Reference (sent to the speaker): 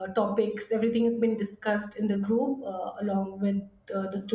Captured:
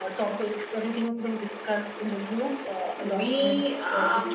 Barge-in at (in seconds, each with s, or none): 3.0 s